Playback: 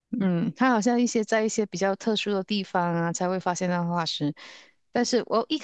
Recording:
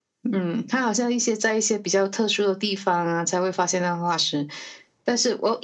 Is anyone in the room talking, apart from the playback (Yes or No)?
No